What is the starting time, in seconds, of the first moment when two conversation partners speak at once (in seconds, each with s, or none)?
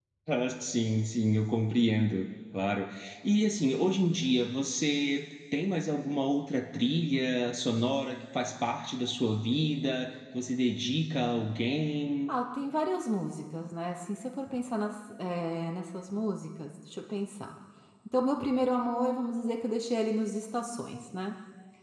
none